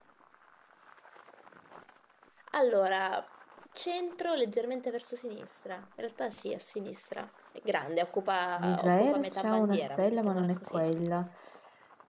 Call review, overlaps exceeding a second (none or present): present